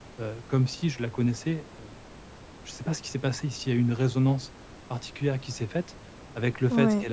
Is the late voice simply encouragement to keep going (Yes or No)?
Yes